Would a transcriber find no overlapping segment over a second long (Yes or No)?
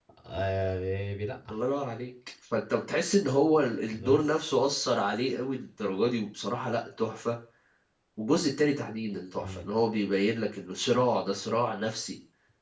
Yes